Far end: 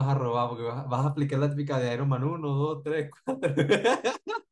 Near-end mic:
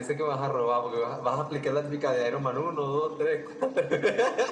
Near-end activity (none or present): none